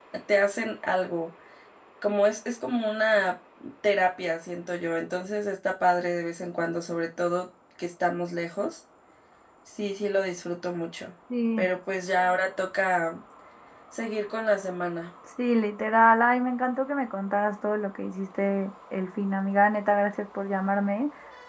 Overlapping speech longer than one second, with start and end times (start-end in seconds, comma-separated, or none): none